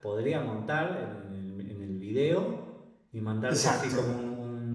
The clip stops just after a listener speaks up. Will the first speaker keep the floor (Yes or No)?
Yes